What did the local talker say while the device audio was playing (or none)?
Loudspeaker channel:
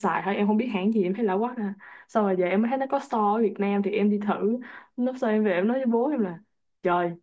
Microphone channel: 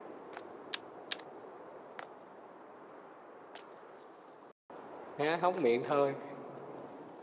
há hốc miệng thôi